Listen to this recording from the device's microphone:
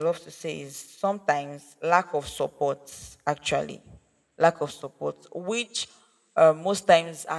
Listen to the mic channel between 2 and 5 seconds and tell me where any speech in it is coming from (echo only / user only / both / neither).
user only